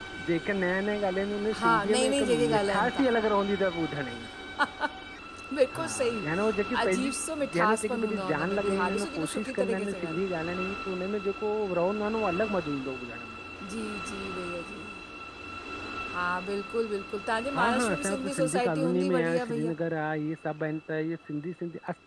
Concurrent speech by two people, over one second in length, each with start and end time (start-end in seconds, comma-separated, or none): 1.6-3.0, 7.5-10.2, 17.6-19.7